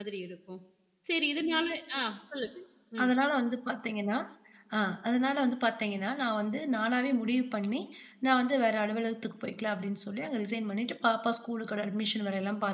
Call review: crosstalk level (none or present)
none